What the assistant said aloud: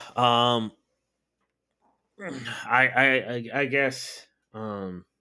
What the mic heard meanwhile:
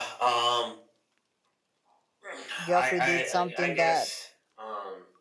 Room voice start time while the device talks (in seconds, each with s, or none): 2.6 s